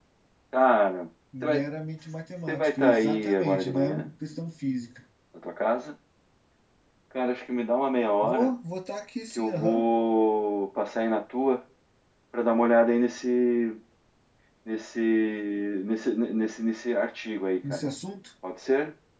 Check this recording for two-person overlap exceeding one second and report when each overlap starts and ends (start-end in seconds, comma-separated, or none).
2.5-4.1